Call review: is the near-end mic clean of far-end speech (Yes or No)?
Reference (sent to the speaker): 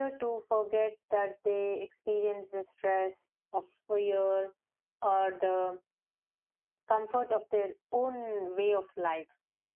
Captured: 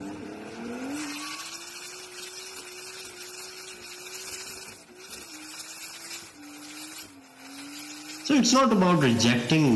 Yes